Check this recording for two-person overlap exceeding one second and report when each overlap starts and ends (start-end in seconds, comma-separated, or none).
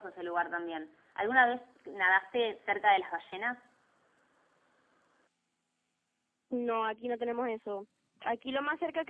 none